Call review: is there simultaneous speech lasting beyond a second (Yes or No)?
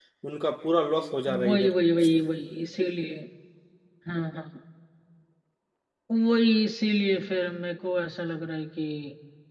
No